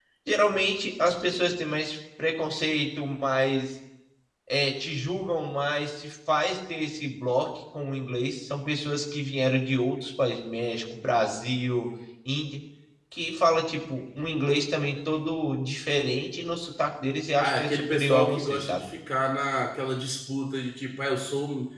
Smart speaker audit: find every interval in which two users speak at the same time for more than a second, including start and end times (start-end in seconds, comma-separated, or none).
17.4-18.9